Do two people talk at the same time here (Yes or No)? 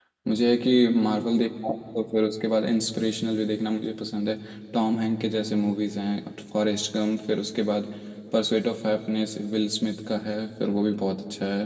No